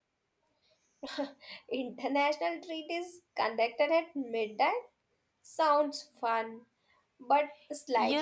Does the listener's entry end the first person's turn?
Yes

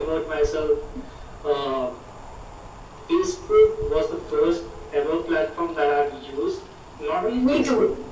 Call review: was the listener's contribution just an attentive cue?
Yes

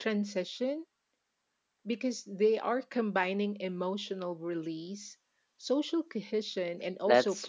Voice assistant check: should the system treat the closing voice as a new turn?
Yes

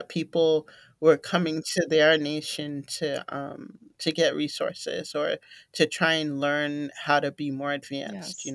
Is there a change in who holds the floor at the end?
No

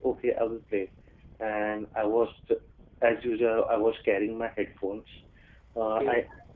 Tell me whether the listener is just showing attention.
Yes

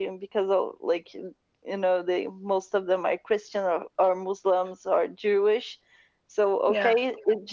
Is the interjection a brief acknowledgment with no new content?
Yes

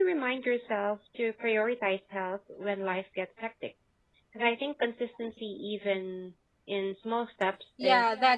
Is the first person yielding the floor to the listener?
Yes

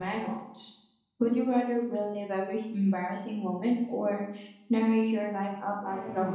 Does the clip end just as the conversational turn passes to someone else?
Yes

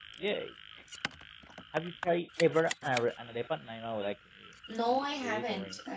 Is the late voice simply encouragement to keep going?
No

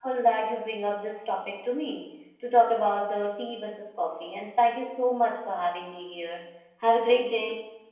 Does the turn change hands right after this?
Yes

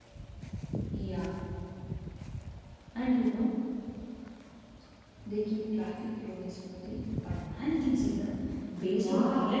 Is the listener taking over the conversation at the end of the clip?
Yes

